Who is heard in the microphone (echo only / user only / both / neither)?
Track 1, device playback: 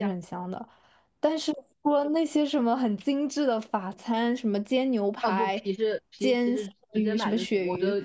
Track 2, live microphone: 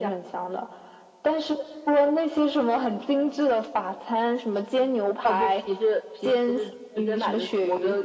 echo only